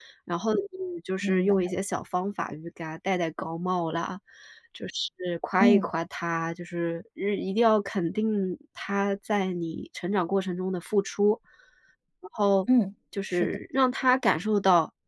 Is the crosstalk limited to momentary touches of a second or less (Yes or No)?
Yes